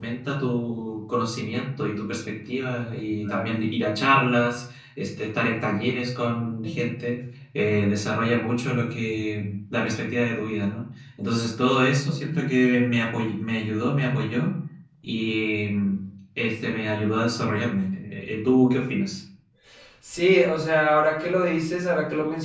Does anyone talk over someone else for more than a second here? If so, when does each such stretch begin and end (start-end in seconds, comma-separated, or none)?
none